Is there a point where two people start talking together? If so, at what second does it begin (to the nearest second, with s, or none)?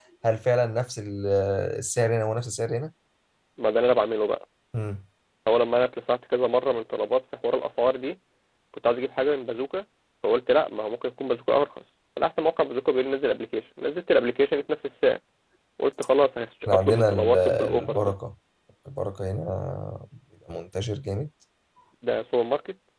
17 s